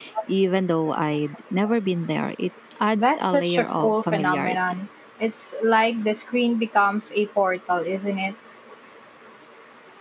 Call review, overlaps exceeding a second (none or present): present